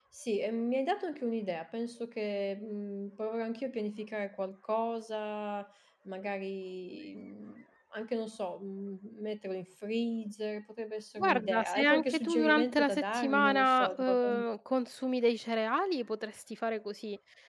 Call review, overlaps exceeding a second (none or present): present